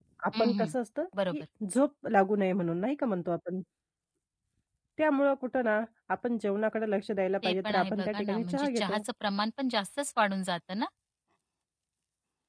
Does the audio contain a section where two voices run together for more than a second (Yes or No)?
Yes